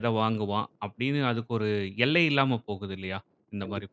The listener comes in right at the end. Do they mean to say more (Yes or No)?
Yes